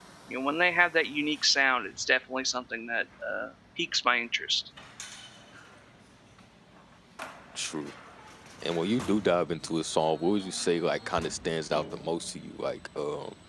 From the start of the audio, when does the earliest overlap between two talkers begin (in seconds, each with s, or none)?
none